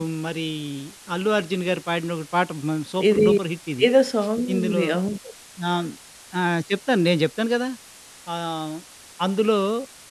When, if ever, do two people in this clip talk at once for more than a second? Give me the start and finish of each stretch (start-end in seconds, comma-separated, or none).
none